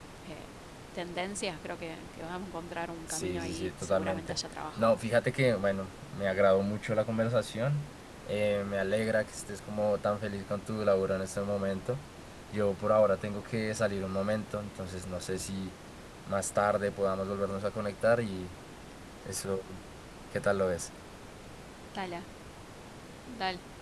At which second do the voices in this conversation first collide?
3.1 s

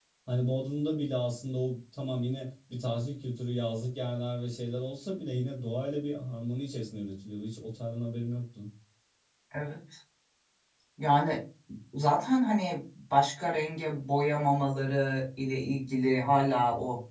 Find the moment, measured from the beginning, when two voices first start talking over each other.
none

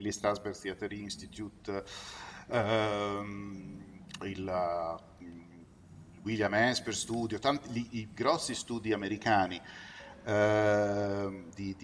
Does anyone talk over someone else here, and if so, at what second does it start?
none

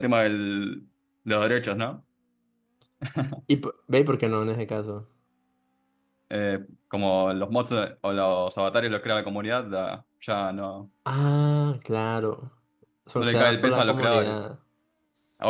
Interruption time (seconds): 13.2 s

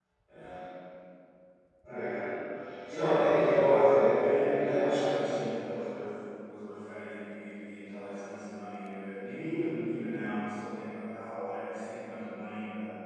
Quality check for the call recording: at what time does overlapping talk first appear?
2.9 s

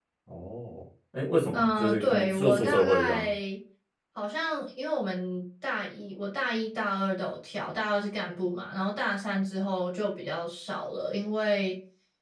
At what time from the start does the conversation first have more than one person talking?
1.5 s

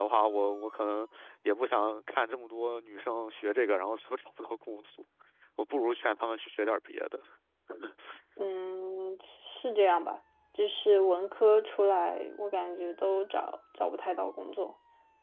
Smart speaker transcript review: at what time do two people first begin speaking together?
none

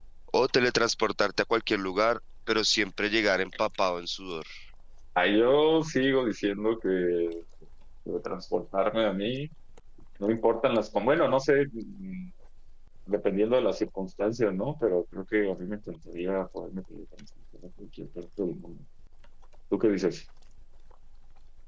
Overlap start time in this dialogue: none

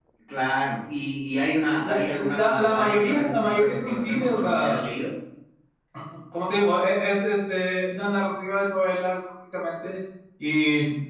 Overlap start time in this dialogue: 1.8 s

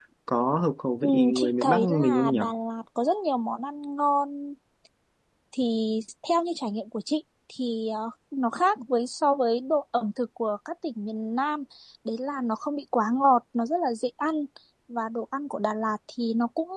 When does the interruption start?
1.0 s

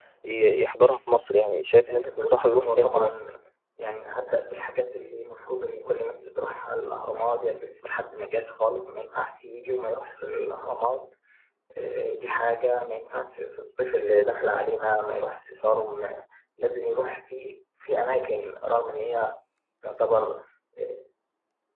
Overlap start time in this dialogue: 1.9 s

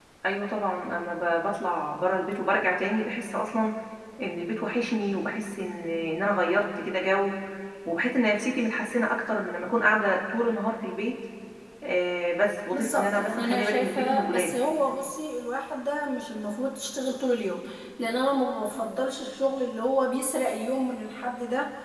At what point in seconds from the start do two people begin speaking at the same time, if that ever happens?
12.7 s

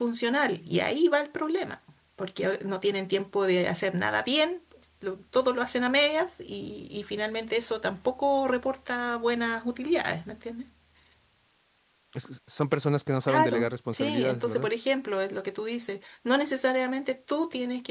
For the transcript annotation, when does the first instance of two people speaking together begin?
13.3 s

